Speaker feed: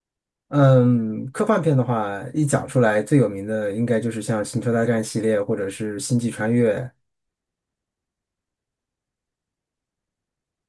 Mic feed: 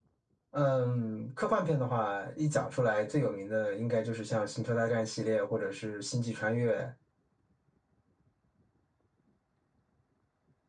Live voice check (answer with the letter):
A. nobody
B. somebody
A